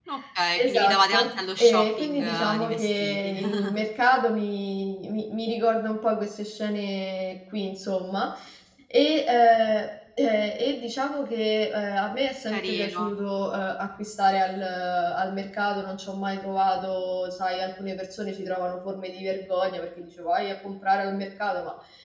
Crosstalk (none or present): present